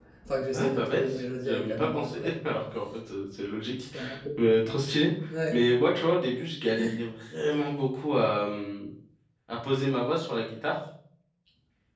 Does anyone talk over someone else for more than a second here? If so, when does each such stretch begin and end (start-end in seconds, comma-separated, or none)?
0.5-2.3